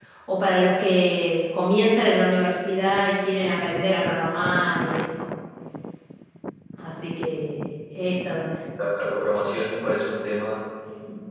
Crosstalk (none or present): none